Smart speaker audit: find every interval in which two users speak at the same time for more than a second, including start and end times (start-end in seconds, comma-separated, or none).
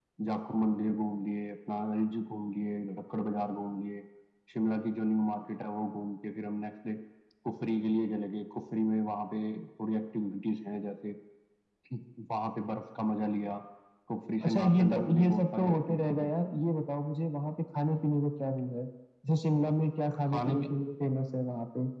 14.4-16.3